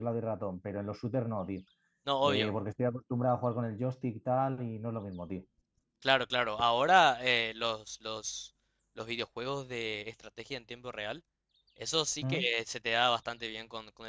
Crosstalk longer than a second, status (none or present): none